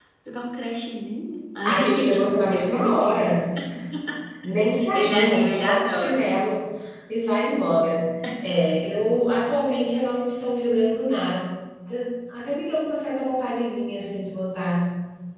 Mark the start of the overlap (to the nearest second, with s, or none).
2 s